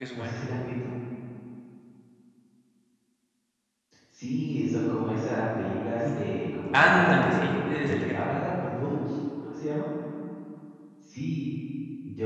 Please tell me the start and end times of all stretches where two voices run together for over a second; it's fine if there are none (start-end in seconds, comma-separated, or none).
6.7-8.3